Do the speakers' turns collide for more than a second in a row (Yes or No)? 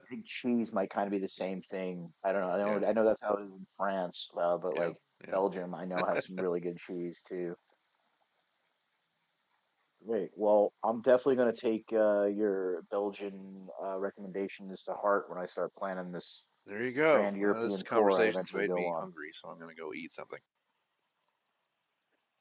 Yes